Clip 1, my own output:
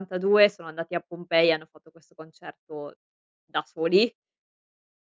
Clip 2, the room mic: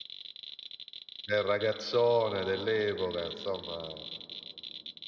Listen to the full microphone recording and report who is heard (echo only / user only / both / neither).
user only